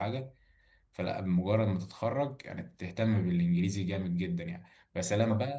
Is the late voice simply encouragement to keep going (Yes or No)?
Yes